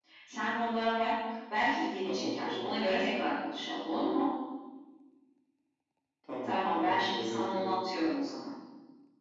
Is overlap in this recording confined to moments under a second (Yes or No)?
No